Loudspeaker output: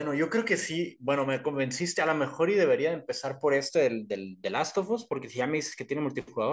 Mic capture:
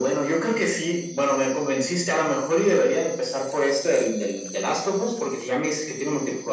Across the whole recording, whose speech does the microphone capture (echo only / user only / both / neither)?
echo only